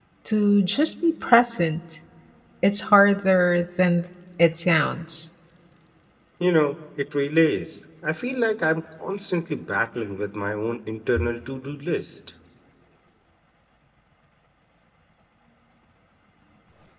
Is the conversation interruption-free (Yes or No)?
Yes